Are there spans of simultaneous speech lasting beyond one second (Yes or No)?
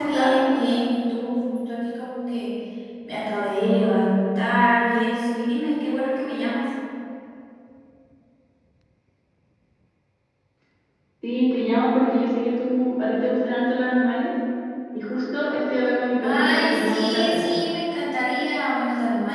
Yes